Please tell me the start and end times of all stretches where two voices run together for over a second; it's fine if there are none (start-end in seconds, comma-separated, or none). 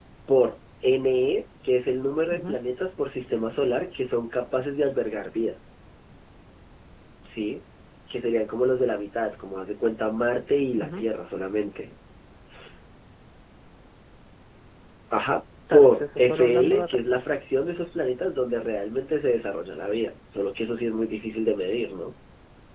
15.7-17.0